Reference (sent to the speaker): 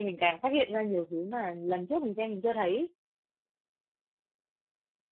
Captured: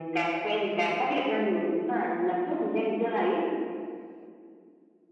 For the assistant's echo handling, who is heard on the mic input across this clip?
echo only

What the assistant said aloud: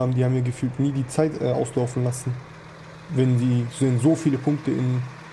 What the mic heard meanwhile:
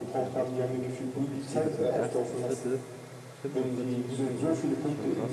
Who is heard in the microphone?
both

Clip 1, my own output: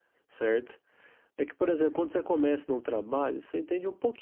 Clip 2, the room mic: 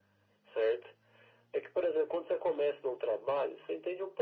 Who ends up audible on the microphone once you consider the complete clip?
echo only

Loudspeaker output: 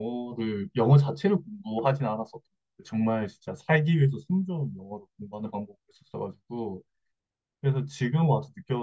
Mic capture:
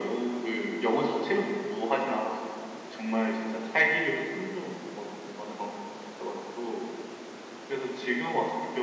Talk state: echo only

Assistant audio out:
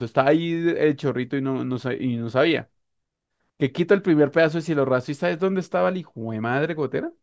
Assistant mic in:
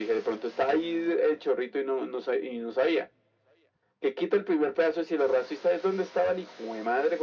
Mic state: echo only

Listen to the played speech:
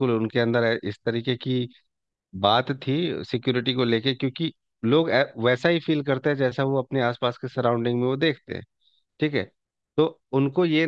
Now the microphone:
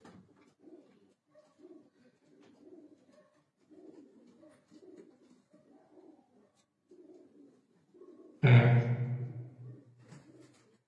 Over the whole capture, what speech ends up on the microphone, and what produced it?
user only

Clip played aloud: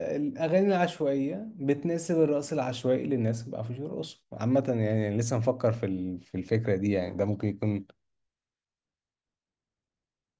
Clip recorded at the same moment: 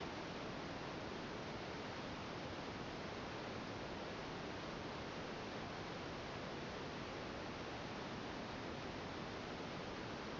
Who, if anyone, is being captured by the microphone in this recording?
neither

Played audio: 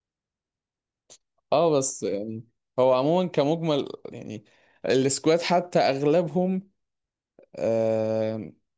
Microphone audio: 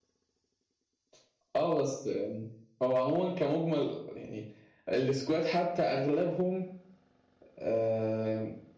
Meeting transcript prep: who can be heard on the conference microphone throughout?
echo only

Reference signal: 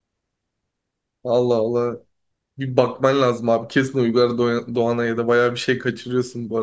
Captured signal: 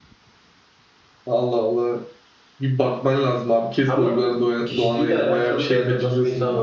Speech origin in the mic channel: both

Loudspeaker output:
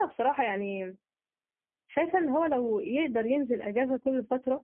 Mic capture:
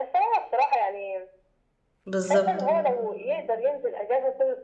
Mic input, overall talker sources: both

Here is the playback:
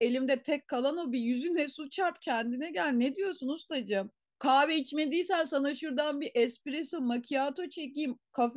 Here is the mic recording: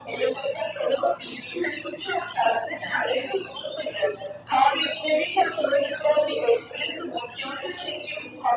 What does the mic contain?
echo only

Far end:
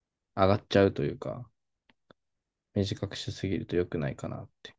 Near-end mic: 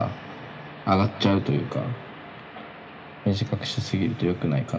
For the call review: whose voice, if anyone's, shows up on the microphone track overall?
echo only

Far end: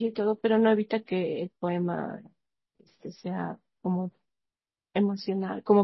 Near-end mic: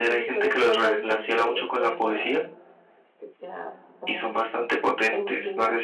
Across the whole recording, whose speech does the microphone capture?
both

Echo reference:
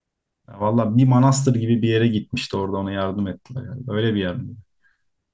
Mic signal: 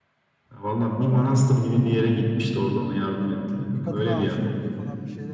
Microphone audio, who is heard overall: both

